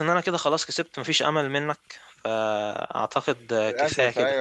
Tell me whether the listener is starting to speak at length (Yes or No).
Yes